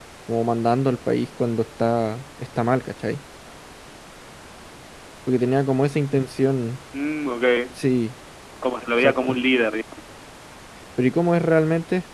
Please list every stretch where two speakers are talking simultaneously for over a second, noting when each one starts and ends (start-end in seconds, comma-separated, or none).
none